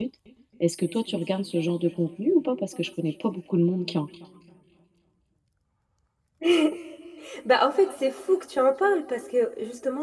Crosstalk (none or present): none